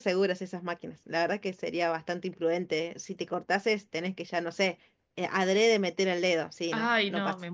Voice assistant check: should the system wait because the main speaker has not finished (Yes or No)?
No